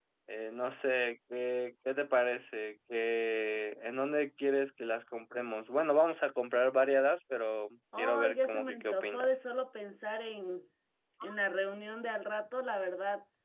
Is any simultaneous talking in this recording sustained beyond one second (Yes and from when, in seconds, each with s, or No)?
Yes, from 7.9 s